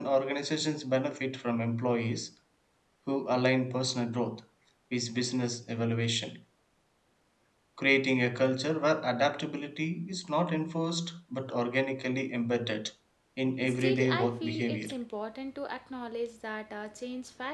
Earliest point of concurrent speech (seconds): 13.7 s

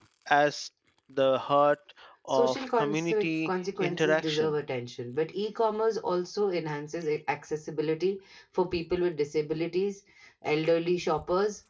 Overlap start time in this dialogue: 2.3 s

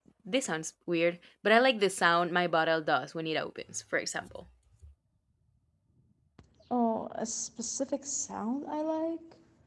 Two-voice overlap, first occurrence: none

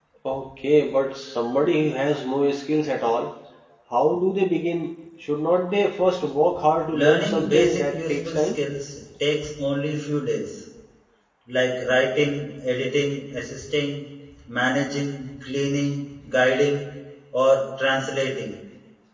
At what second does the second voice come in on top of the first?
7.0 s

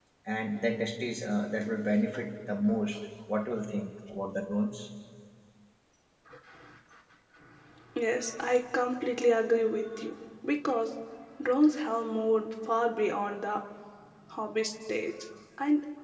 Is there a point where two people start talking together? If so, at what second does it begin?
none

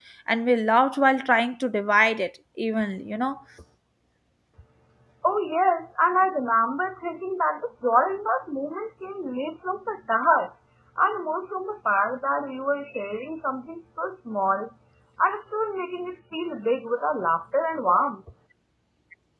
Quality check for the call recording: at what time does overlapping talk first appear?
none

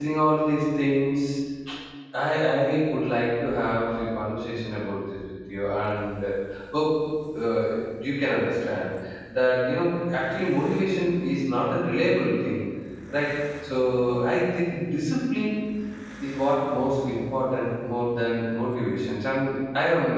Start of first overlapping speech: none

